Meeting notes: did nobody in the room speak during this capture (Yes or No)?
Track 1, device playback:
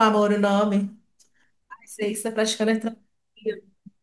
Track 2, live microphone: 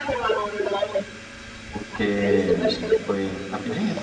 No